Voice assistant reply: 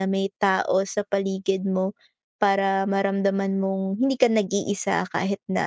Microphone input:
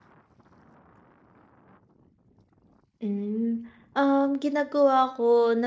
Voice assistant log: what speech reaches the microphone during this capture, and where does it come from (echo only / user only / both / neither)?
user only